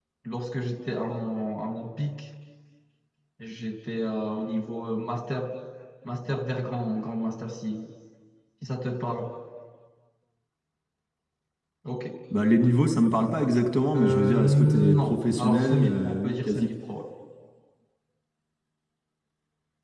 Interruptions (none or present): present